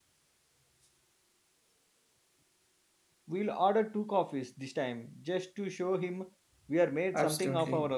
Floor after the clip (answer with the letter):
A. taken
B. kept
A